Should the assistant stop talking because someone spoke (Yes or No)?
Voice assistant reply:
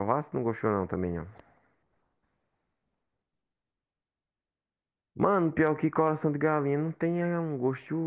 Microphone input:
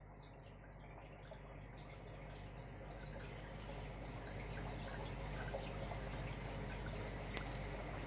No